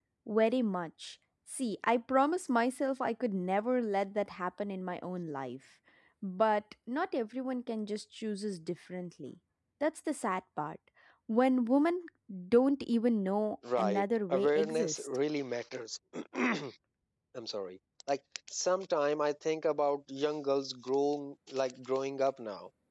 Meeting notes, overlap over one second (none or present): present